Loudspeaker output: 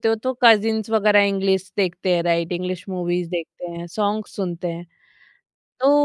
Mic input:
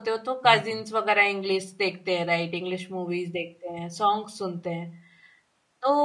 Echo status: present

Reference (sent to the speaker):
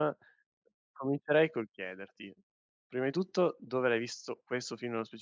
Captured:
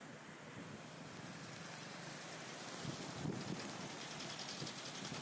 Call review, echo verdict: none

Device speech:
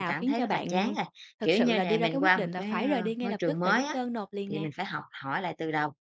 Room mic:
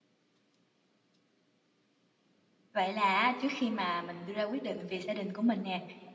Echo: none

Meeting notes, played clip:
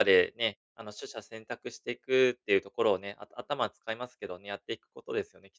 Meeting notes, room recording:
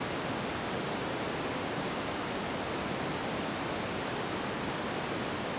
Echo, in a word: none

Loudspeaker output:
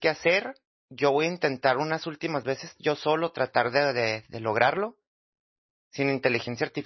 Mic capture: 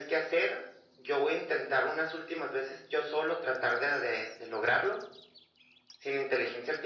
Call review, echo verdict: present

